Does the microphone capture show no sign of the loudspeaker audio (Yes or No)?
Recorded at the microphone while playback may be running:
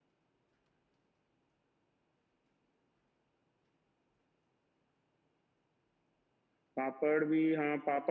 Yes